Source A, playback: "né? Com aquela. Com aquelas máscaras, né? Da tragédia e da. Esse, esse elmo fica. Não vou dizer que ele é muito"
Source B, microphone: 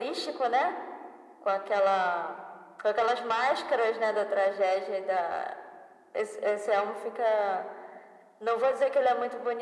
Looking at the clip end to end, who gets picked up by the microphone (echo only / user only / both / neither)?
echo only